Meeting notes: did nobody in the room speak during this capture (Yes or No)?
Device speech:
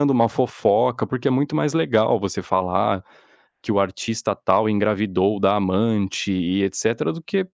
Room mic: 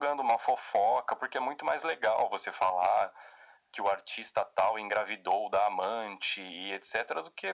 Yes